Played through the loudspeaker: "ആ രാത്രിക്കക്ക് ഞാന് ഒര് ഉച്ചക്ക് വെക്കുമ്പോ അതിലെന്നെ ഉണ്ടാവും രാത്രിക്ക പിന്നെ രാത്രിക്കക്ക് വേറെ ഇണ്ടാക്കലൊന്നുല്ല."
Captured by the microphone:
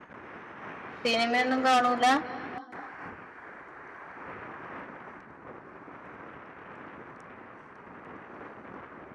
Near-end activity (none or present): present